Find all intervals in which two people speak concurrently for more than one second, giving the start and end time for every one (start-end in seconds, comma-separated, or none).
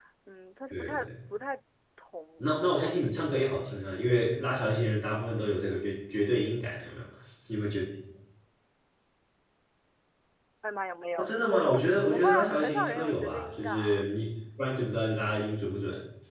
2.4-4.1, 11.2-14.1